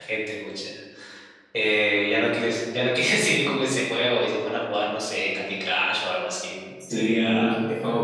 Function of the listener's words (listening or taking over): taking over